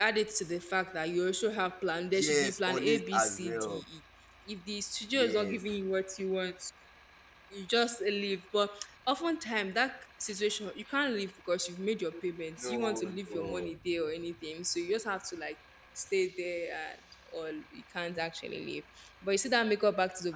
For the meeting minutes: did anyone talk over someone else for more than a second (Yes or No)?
Yes